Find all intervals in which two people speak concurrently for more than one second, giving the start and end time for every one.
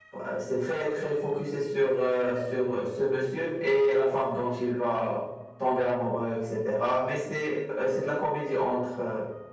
none

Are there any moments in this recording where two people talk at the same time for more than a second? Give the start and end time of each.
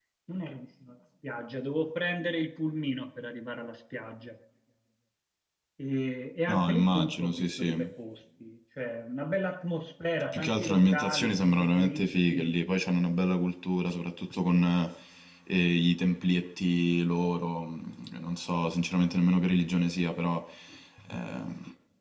6.5-7.7, 10.3-12.6

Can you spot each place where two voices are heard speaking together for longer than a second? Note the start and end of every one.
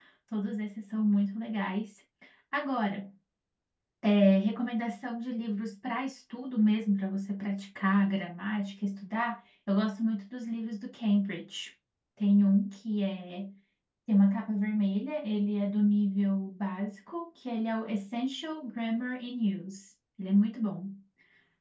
none

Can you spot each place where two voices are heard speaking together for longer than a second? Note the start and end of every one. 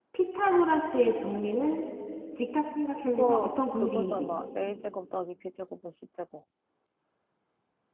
3.1-4.3

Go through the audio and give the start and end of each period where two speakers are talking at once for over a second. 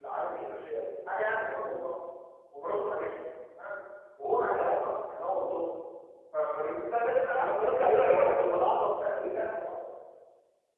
7.4-9.4

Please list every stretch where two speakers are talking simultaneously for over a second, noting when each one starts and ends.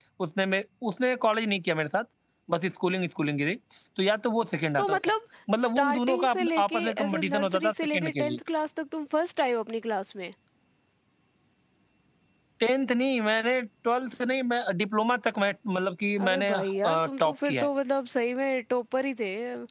5.6-8.4, 16.2-17.7

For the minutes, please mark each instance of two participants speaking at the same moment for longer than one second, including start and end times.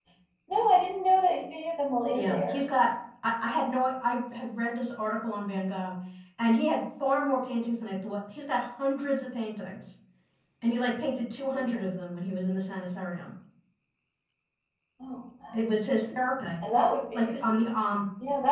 none

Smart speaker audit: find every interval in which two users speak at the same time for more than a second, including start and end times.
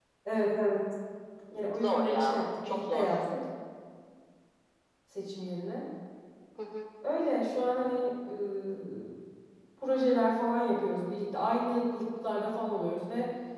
1.7-3.1

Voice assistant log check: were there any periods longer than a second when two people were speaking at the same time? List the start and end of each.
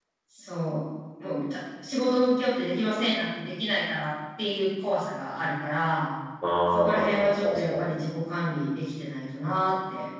6.7-7.9

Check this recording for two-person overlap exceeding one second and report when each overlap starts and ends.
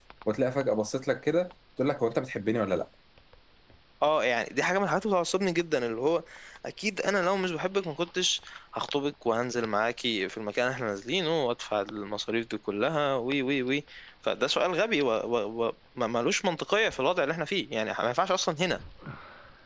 none

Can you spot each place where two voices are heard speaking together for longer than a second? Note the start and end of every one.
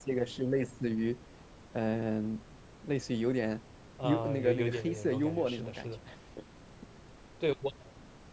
4.0-5.9

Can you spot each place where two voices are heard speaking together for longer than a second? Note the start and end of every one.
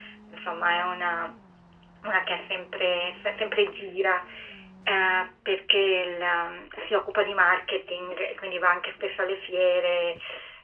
none

